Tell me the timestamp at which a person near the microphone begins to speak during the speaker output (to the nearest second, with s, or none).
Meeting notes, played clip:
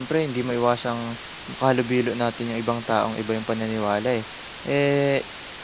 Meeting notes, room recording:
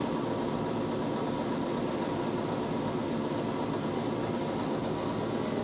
none